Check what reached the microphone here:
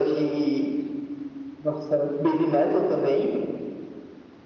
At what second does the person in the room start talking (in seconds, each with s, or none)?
none